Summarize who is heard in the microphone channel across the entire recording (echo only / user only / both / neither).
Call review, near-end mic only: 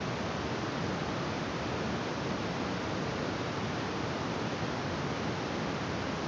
neither